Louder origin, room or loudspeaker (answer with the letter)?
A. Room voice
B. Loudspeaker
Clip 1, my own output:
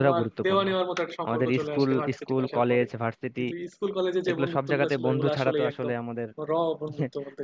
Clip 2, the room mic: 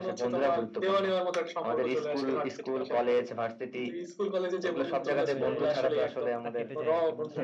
B